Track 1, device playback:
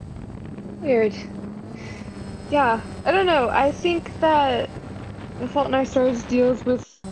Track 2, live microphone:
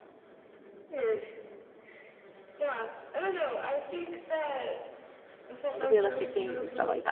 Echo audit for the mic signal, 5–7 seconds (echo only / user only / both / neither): both